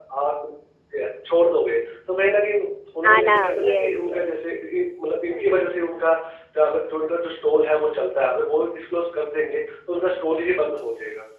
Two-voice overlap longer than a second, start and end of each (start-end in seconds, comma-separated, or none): 3.0-4.5